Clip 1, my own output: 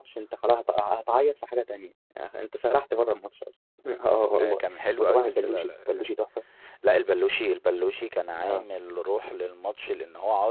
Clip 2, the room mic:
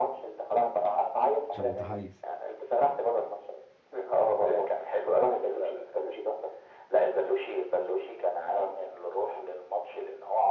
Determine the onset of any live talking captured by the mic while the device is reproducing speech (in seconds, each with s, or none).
1.5 s